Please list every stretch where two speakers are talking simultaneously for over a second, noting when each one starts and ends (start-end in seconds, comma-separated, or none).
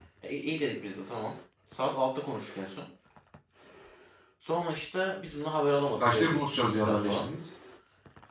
6.0-7.3